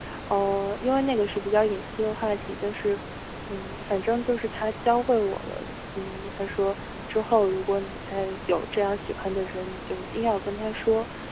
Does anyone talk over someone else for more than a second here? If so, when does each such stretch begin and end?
none

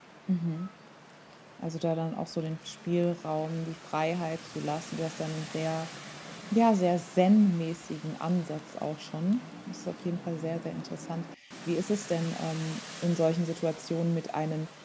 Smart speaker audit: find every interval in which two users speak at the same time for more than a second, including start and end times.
none

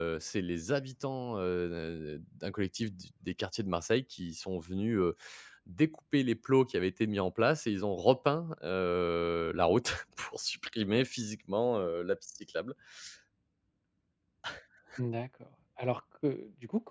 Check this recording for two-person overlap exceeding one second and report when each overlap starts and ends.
none

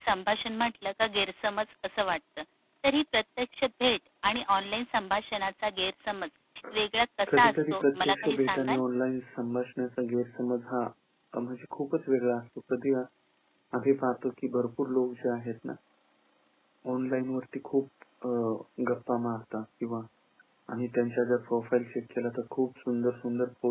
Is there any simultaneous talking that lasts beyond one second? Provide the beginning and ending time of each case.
7.3-8.8

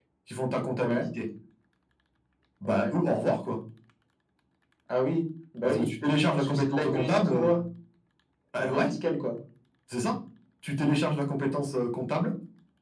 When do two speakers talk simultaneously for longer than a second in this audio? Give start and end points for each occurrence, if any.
6.3-7.5

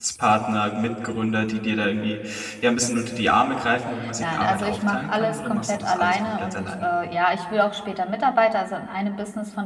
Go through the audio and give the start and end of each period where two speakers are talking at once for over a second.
4.2-6.9

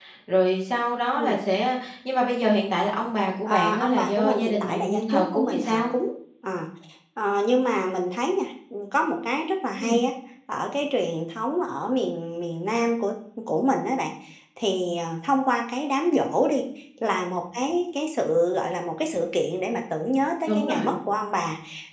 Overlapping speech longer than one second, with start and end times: 3.4-5.9

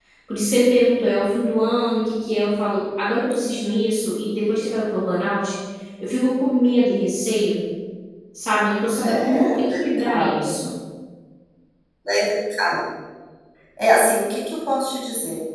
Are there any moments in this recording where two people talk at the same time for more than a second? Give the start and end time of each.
9.0-10.3

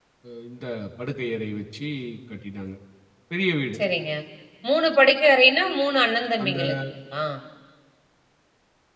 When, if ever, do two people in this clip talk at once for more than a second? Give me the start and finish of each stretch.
none

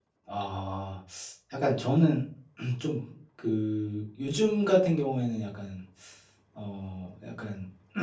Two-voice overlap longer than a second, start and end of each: none

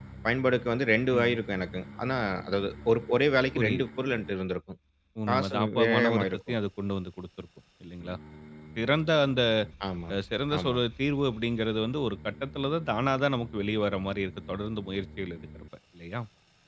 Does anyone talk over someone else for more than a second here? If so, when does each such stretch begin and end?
5.3-6.5

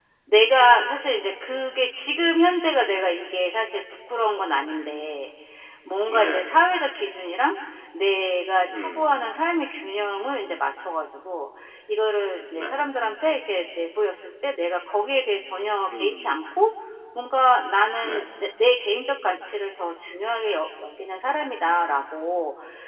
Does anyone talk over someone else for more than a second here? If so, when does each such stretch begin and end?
none

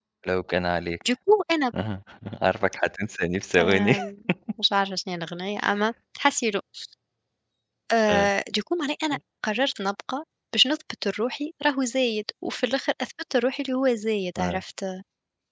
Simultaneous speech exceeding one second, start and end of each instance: none

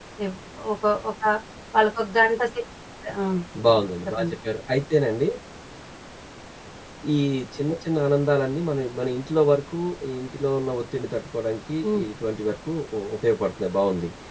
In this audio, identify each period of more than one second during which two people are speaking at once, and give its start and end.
none

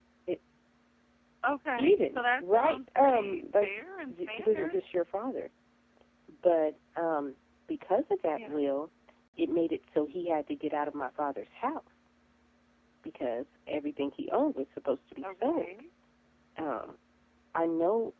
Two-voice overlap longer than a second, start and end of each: 1.8-4.8

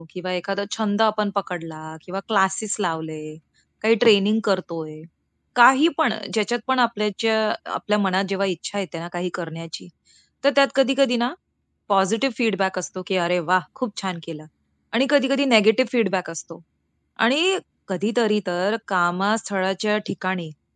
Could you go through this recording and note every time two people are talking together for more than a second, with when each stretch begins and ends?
none

